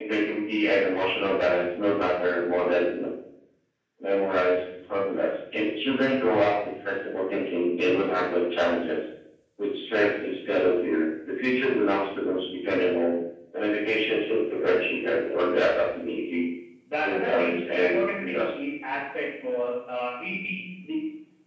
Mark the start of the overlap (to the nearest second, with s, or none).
17 s